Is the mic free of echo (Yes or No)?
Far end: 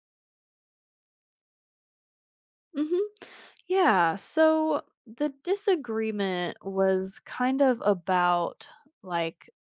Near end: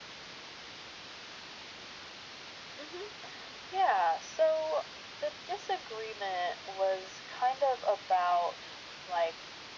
No